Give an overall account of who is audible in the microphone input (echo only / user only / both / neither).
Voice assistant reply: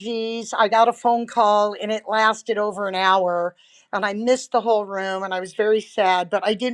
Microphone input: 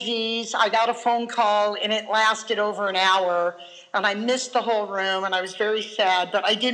echo only